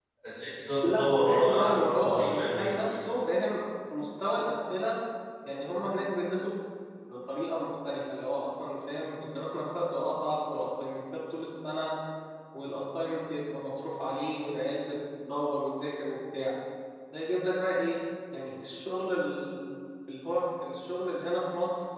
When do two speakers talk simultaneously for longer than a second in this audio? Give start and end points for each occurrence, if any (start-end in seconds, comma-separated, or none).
0.8-2.7